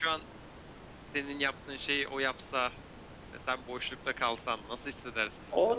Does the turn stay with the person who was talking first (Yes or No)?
No